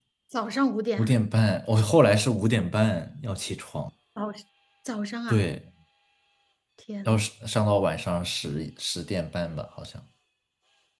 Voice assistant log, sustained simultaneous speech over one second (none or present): none